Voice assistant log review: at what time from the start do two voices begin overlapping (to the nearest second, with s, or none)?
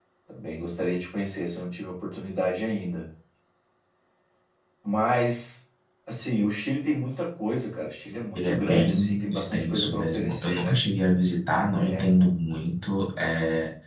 8 s